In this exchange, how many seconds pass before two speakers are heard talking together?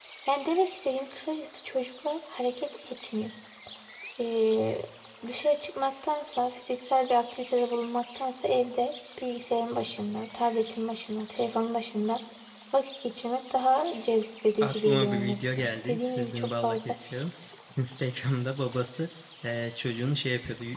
14.6 s

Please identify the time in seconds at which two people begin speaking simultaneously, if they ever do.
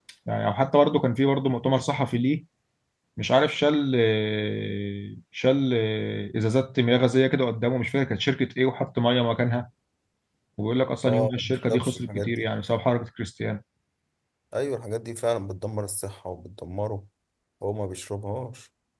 11.1 s

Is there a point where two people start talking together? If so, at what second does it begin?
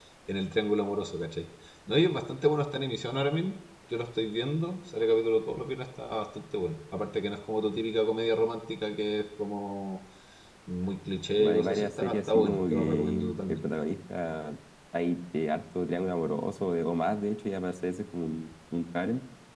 11.4 s

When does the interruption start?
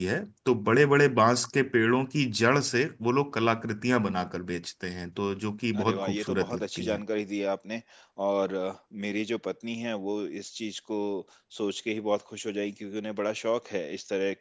5.7 s

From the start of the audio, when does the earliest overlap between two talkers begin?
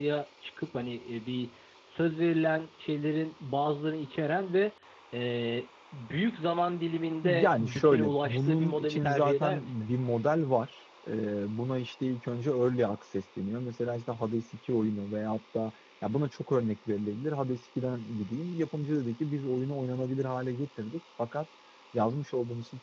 7.2 s

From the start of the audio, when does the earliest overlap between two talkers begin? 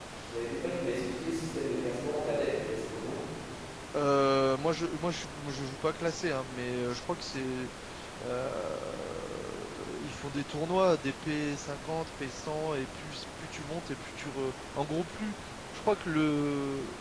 none

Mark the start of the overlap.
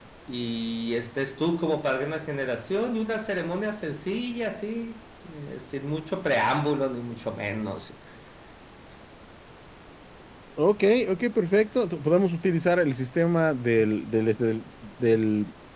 none

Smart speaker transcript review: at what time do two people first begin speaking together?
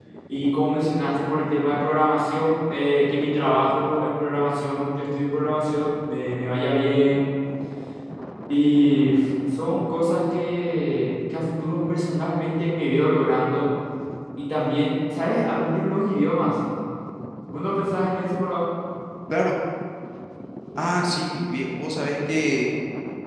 none

